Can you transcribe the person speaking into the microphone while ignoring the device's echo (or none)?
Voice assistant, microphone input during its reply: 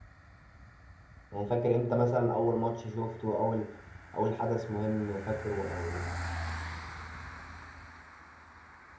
يعني فاكر امتى مثلا اول ماتش شفته اول اول حدث مهم فاكره او